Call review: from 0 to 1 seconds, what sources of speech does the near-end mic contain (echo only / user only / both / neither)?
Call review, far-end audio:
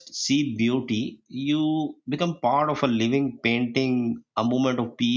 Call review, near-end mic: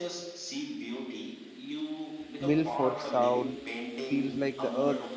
echo only